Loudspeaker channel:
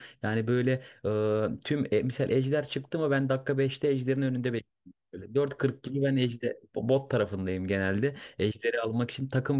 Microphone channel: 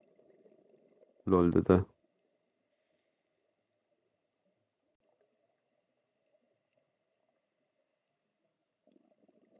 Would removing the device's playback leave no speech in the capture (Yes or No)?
No